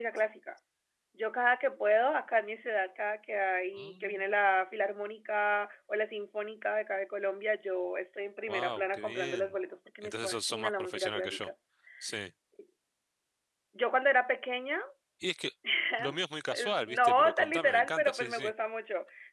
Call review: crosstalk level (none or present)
present